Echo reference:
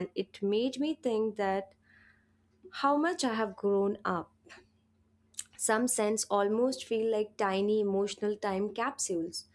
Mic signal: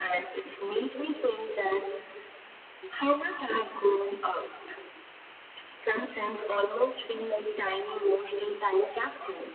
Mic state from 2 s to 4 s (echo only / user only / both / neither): echo only